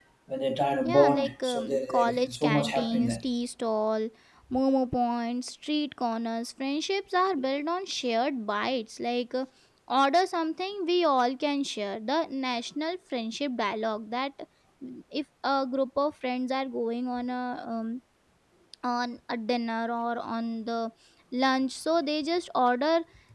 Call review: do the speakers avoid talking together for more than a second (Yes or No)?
No